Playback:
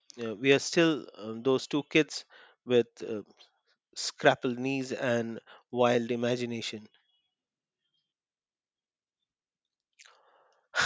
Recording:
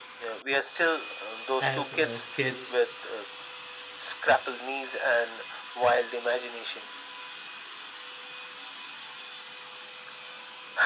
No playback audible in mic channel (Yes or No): No